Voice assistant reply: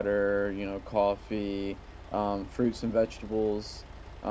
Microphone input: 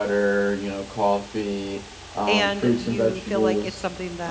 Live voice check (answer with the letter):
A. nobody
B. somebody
B